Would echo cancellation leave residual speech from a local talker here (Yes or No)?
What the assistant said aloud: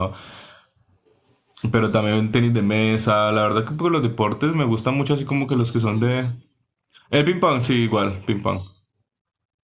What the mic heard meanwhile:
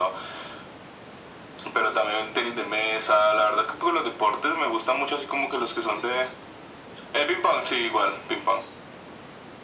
No